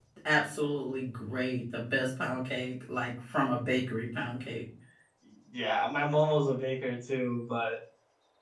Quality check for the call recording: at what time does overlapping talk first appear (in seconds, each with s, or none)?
none